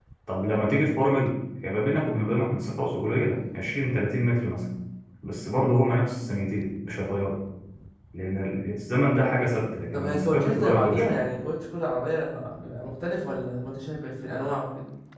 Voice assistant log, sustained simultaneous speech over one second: present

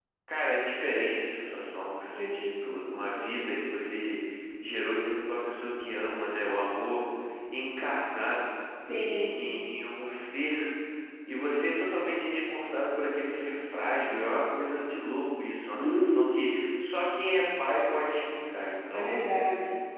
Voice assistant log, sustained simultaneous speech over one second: none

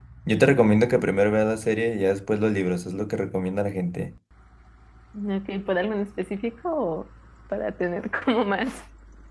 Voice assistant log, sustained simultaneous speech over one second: none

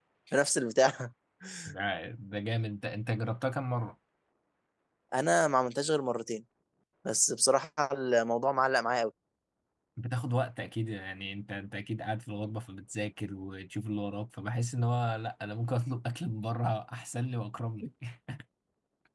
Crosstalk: none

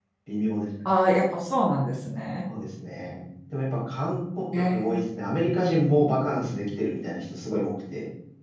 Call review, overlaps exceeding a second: none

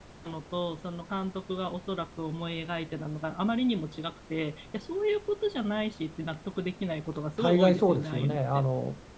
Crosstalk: present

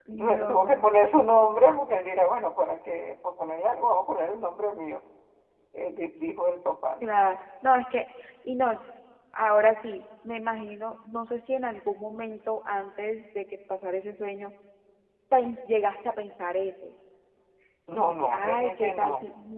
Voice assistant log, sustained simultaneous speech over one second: present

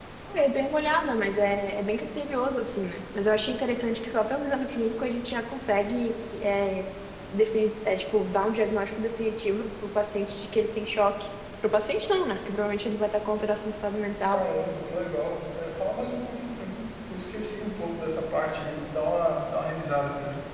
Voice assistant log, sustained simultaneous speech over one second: none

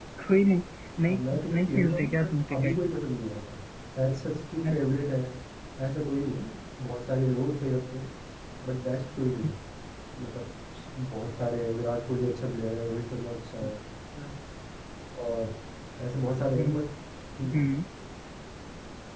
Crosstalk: present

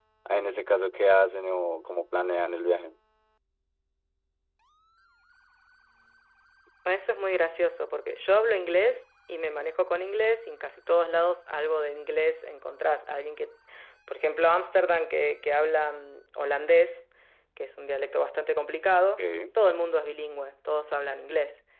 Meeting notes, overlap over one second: none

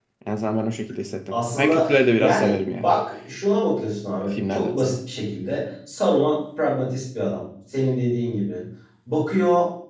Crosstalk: present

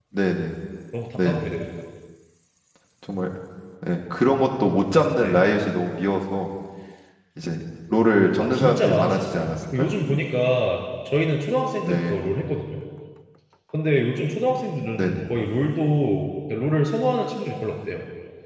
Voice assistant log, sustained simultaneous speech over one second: present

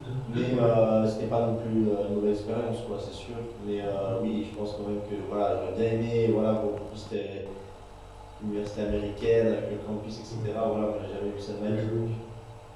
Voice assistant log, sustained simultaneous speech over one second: none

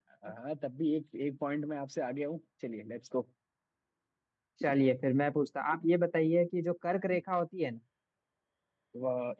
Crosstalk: none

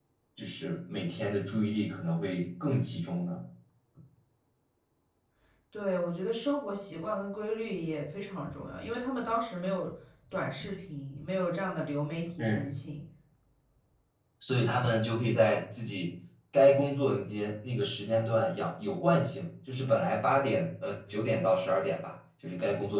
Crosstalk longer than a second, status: none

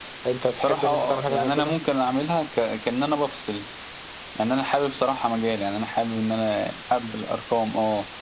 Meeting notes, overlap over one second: present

